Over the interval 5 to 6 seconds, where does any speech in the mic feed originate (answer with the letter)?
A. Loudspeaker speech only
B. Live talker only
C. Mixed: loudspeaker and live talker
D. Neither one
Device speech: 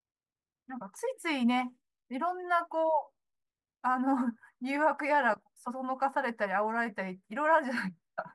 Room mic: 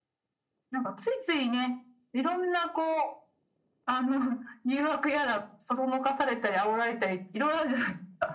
A